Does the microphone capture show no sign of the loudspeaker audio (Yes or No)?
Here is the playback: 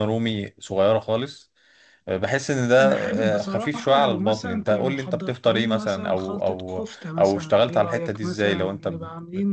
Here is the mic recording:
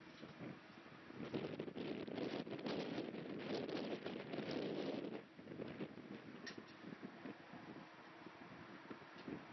Yes